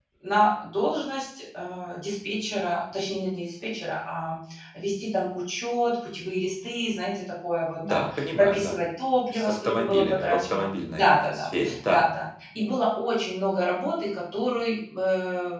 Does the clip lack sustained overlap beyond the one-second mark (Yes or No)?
No